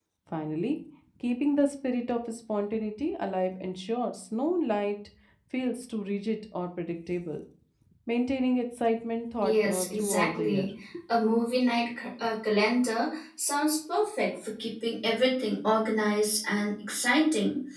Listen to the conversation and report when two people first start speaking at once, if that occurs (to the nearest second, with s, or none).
9 s